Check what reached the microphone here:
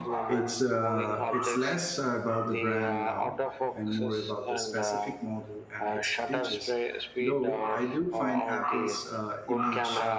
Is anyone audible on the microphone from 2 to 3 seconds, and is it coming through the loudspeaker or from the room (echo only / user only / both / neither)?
both